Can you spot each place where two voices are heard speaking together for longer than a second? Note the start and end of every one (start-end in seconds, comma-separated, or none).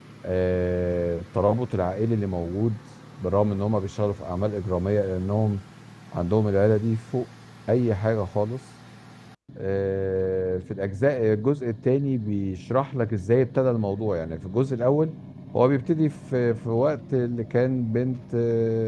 none